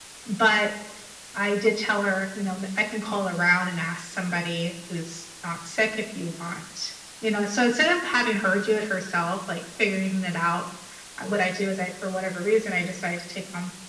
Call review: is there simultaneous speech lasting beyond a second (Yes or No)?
No